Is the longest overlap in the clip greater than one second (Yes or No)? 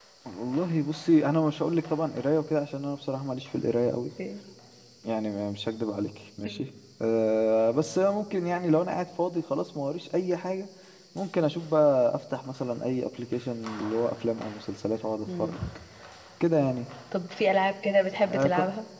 No